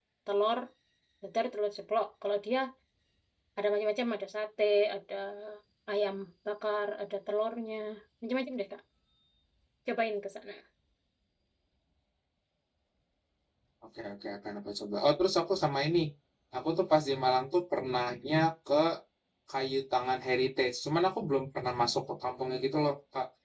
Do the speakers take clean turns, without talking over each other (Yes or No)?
Yes